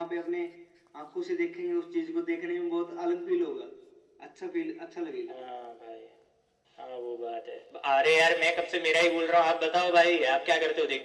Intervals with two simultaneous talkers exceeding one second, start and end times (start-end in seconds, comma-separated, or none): none